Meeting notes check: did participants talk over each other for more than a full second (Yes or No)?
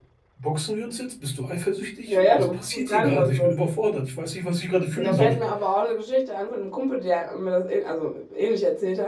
Yes